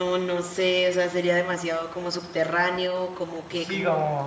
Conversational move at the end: taking over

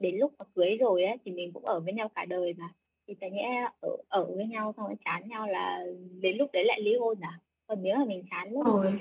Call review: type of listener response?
listening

